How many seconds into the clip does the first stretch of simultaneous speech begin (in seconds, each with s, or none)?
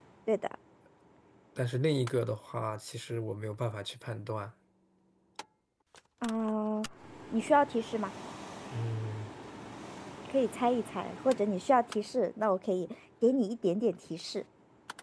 none